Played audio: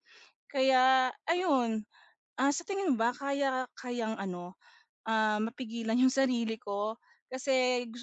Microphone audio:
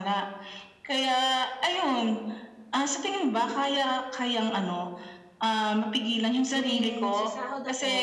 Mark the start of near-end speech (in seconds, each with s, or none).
6.5 s